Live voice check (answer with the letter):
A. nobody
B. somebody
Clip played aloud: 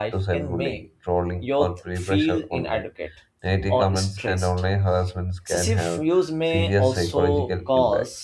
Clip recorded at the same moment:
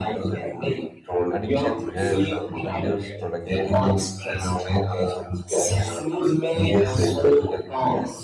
B